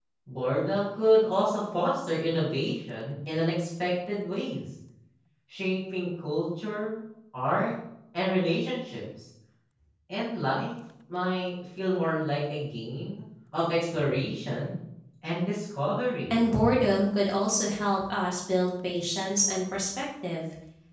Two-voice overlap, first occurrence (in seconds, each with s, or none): none